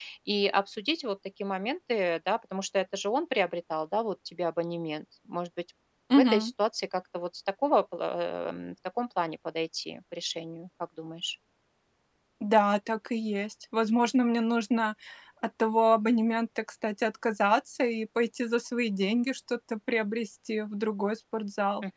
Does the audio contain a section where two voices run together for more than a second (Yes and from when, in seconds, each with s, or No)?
No